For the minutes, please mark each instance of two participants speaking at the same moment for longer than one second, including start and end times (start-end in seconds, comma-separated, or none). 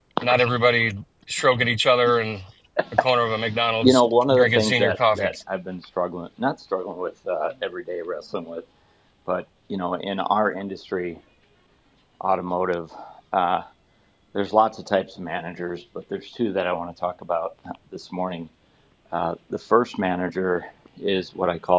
3.8-5.3